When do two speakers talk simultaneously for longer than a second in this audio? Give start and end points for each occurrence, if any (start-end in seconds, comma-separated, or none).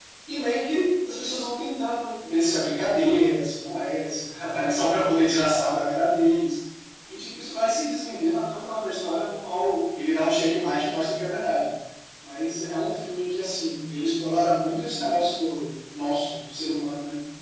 none